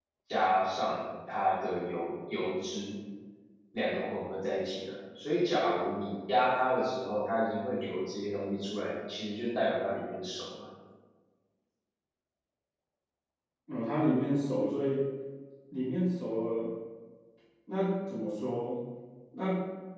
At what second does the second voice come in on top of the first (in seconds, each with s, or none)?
none